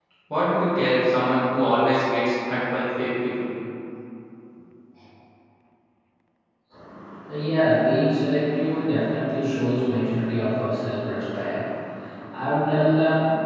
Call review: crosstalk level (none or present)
none